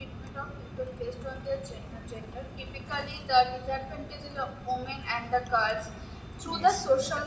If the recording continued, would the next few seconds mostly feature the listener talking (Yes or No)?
No